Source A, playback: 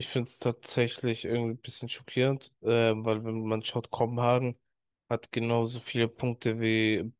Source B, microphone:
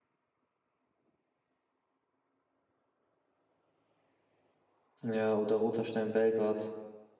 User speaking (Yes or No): Yes